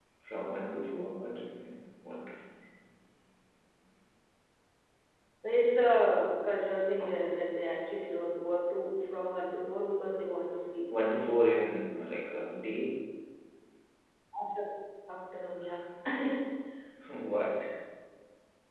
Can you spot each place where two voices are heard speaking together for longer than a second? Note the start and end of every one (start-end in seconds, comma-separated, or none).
none